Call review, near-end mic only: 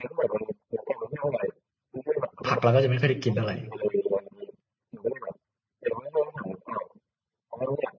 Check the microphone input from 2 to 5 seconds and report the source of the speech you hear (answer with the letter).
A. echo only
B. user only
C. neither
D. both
D